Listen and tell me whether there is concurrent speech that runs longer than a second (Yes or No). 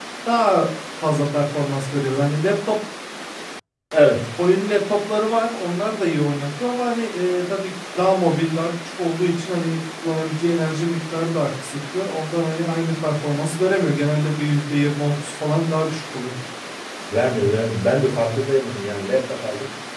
No